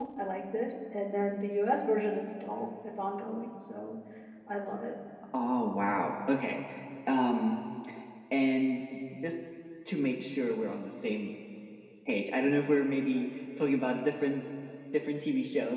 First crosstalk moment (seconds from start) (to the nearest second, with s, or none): none